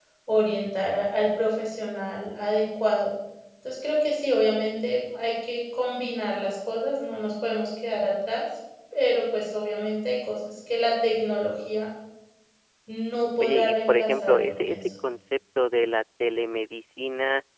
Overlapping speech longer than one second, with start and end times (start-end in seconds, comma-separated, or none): 13.4-14.9